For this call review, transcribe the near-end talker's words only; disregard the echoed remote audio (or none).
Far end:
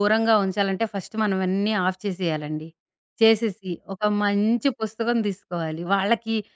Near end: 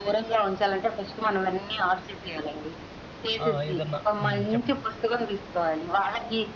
ఆహ్, ఏదన్నా హ్మ్. చెప్పండి.